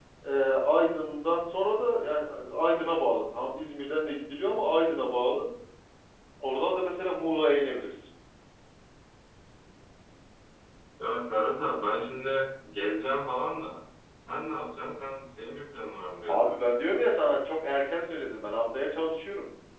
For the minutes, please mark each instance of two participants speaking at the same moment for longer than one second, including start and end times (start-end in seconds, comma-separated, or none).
none